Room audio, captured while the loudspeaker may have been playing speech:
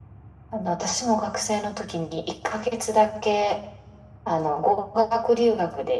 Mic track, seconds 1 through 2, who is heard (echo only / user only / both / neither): echo only